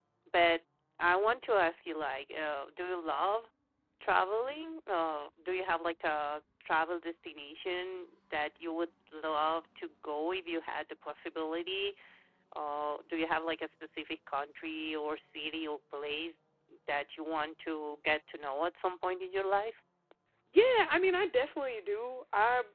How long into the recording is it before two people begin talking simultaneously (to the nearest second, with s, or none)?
none